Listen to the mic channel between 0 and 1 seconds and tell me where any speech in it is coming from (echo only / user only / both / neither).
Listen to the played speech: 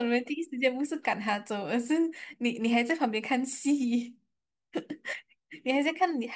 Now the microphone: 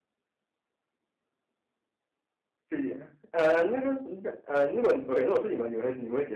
neither